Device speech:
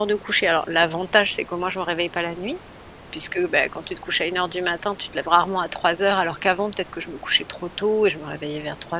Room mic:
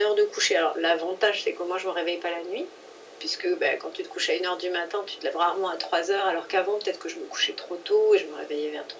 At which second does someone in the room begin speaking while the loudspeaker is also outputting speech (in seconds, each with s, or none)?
none